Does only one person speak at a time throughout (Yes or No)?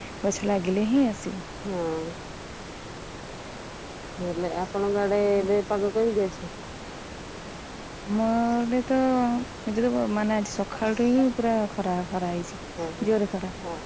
Yes